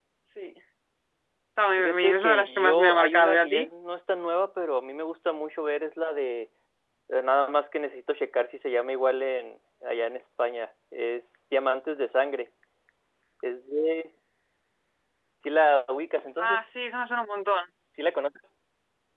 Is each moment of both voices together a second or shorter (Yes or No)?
No